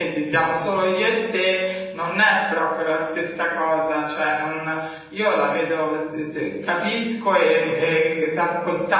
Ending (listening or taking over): listening